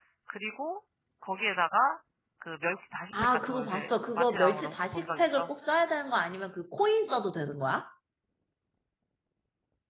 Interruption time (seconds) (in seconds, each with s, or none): 3.2 s